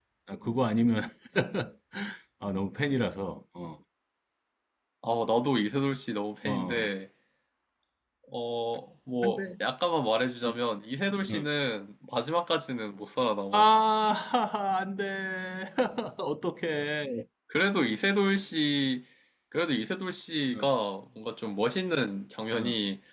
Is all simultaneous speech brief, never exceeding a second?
Yes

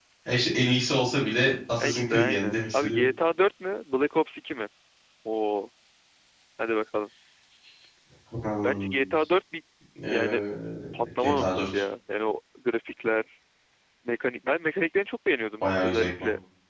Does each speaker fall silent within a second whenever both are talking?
No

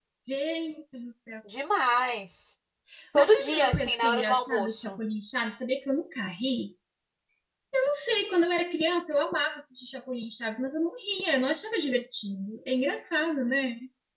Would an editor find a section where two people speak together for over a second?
Yes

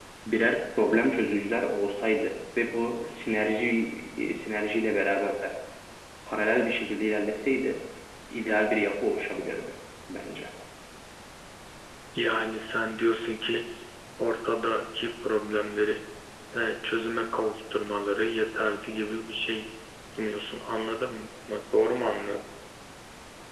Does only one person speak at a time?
Yes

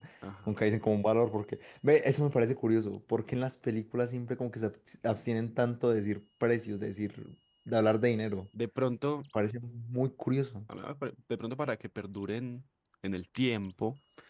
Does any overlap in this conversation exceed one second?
No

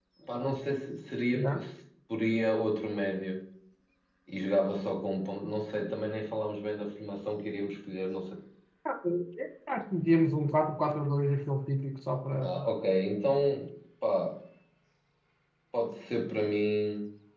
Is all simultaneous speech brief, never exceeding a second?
Yes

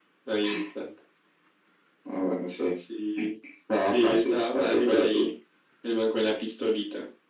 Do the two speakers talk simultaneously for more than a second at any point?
Yes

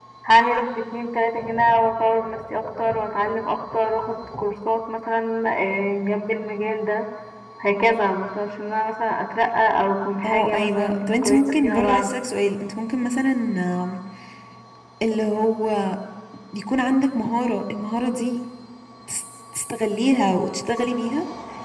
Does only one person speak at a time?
No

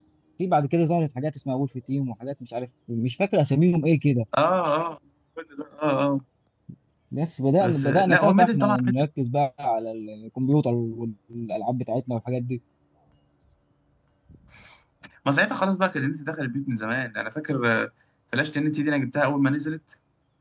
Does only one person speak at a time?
No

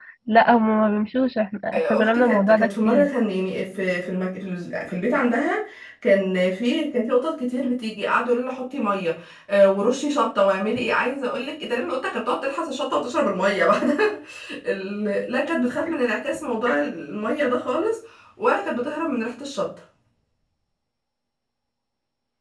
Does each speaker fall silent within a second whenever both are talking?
No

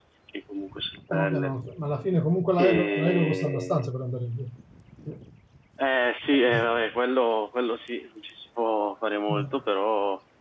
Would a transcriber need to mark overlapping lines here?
Yes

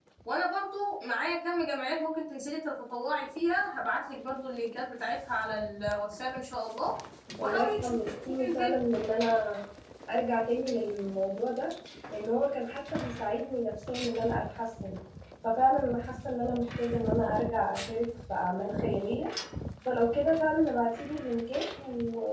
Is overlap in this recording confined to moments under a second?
No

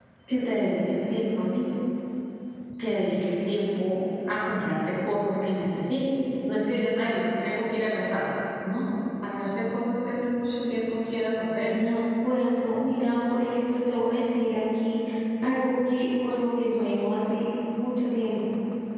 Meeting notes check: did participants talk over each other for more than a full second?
No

